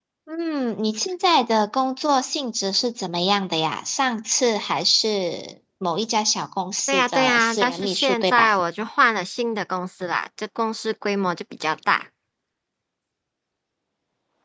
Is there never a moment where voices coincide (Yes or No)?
No